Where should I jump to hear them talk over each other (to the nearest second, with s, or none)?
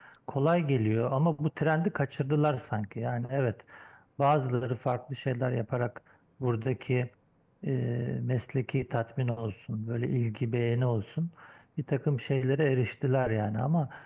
none